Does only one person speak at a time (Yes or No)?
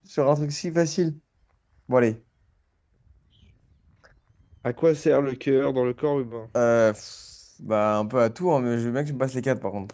Yes